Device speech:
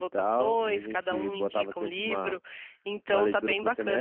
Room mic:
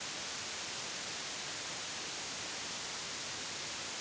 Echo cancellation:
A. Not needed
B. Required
A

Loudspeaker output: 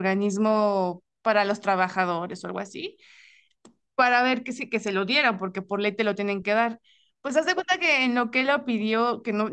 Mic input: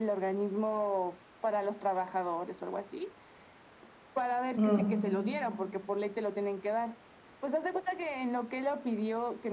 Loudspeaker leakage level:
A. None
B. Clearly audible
B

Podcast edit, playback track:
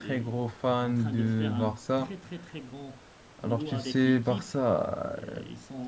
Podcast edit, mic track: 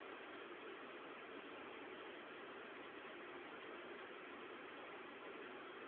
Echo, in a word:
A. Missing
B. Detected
A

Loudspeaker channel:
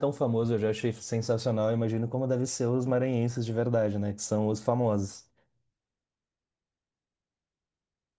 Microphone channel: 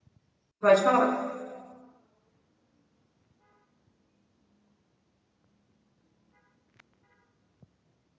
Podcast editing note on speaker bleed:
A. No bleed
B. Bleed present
A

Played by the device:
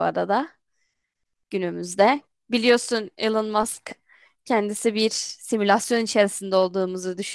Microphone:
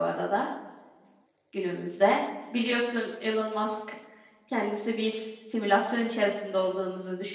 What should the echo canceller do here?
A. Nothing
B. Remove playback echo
B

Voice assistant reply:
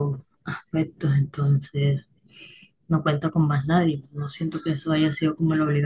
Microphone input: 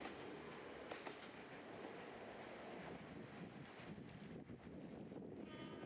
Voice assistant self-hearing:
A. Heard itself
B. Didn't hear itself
B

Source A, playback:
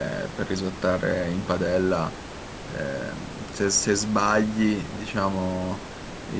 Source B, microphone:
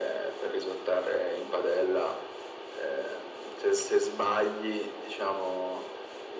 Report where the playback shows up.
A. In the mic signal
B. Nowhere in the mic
A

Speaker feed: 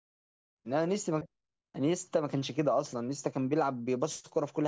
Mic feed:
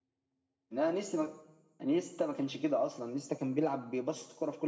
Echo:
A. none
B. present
B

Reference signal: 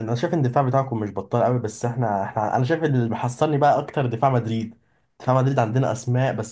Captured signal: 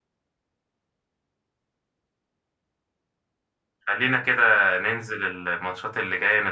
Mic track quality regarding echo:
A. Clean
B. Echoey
A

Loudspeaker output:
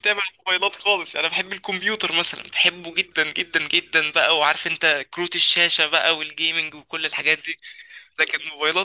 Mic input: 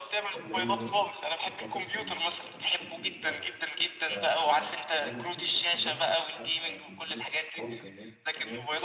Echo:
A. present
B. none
A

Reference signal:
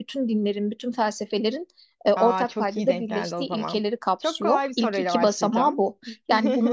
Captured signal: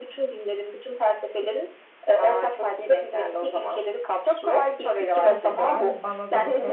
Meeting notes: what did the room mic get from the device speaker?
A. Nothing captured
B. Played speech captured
B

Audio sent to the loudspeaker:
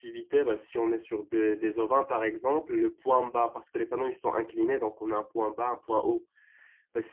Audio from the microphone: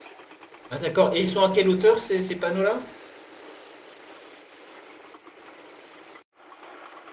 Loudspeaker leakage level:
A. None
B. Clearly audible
A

